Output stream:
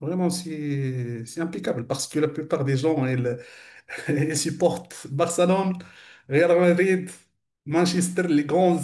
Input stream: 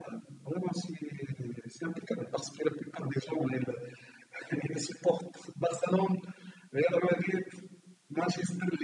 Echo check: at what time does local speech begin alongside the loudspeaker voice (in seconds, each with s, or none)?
none